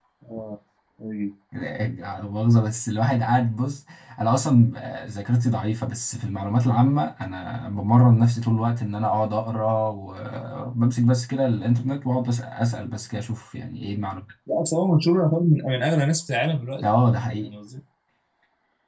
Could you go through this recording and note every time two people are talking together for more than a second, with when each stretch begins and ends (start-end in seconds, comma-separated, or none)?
none